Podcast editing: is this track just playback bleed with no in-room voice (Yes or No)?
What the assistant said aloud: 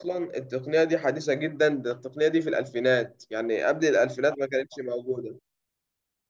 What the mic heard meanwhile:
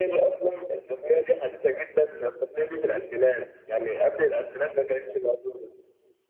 Yes